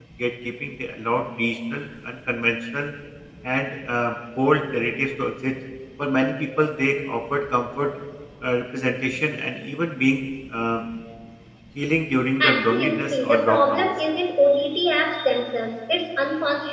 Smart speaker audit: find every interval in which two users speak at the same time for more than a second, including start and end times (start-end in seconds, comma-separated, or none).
12.4-13.9